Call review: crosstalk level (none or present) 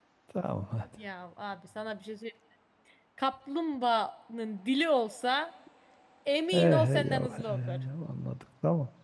present